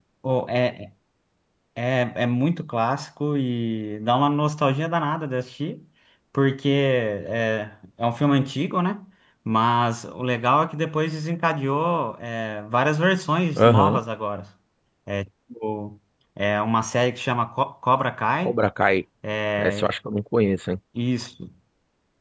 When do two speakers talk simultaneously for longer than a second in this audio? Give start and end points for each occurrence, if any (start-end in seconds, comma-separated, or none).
none